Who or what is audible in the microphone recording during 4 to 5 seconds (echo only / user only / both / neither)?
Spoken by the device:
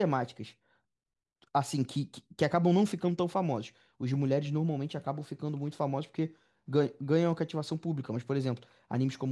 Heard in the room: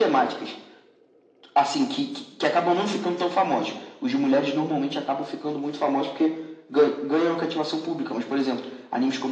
echo only